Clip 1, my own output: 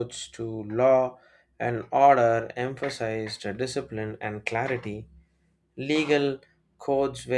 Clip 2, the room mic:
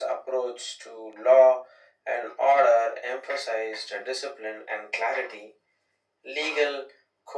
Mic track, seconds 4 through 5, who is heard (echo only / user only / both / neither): echo only